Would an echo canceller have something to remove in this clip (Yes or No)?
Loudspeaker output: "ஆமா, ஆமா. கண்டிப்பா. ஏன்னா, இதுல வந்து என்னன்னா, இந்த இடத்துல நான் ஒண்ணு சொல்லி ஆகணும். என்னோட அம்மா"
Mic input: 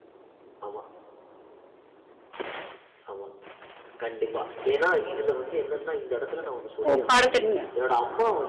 Yes